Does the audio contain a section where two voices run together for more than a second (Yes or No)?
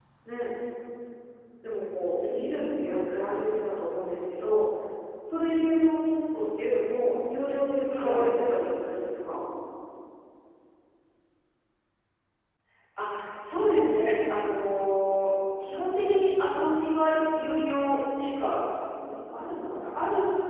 No